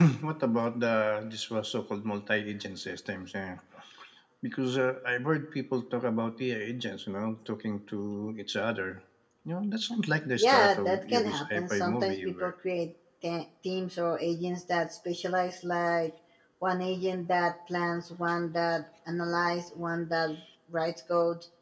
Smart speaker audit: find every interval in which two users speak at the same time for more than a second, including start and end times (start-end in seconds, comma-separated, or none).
10.4-12.5